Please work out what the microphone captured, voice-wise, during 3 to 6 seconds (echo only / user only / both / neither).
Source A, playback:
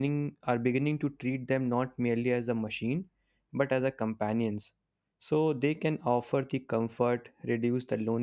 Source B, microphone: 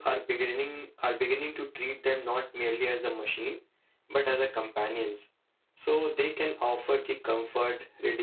echo only